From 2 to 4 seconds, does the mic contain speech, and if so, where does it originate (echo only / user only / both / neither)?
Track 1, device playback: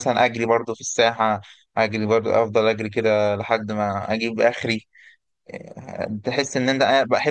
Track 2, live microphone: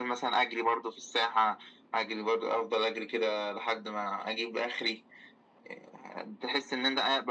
echo only